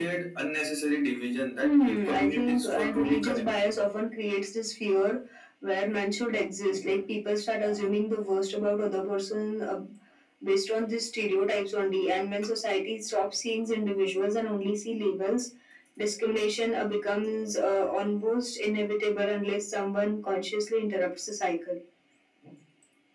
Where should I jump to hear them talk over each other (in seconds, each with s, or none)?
1.6 s